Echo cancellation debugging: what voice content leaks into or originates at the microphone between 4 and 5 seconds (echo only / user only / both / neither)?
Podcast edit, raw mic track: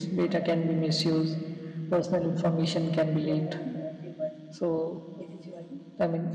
echo only